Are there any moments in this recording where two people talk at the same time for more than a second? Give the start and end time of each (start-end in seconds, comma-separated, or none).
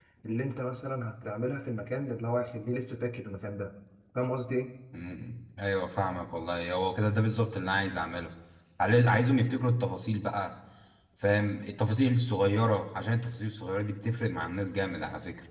none